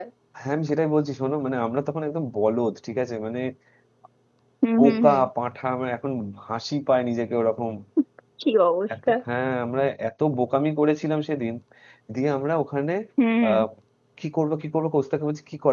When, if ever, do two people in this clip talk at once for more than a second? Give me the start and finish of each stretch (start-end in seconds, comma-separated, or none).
none